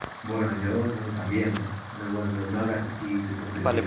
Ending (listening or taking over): taking over